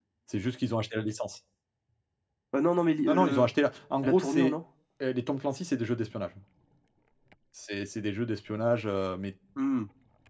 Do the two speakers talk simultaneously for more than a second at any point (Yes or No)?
No